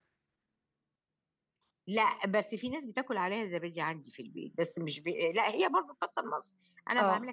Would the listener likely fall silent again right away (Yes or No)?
Yes